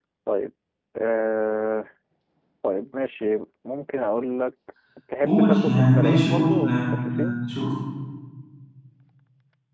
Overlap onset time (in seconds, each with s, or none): 5.2 s